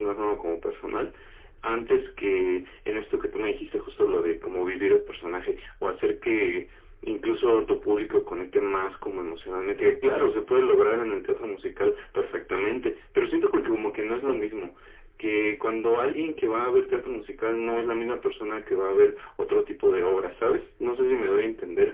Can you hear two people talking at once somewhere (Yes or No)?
No